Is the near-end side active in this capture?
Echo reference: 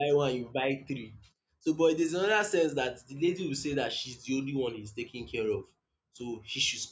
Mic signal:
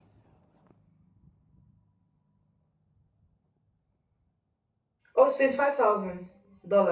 Yes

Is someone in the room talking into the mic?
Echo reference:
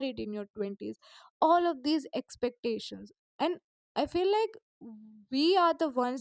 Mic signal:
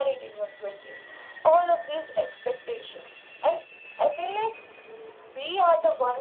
No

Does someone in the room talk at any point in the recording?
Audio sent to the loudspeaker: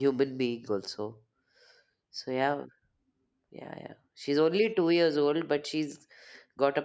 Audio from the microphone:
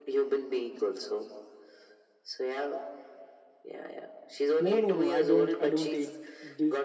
Yes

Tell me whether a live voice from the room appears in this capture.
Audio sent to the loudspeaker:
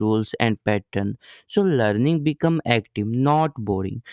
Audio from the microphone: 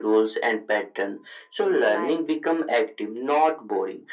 Yes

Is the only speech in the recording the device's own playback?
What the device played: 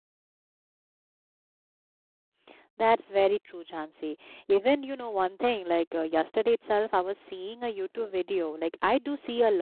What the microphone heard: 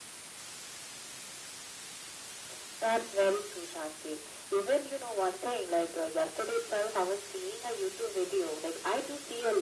Yes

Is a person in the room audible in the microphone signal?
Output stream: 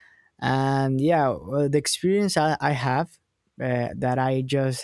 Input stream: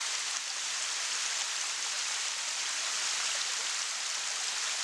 No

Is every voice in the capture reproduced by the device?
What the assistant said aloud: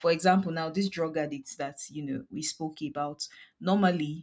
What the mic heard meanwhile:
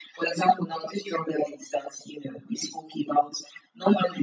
Yes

